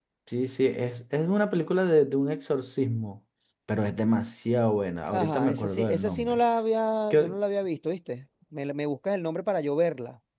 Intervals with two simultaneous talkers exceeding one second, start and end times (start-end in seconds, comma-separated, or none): 5.1-6.4